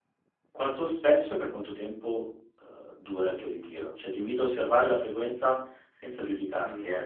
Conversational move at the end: listening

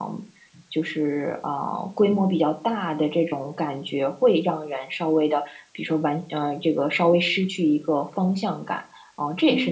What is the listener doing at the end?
listening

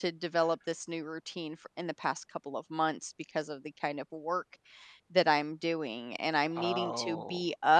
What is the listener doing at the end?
listening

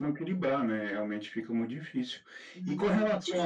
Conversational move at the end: taking over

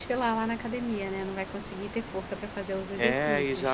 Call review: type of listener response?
taking over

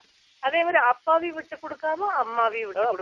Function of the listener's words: taking over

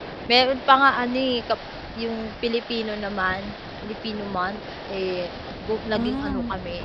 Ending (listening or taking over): listening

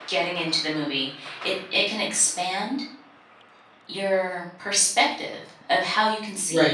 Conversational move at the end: listening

